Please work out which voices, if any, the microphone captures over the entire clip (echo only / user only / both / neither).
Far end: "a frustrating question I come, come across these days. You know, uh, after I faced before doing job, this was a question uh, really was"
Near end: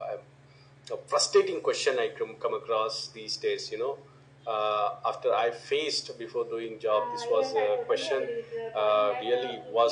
both